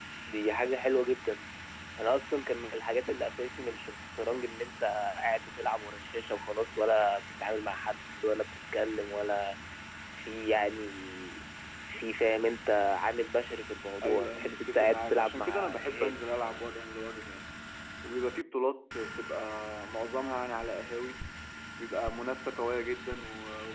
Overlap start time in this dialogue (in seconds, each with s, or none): 14.0 s